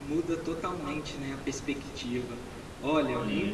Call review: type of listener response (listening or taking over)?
listening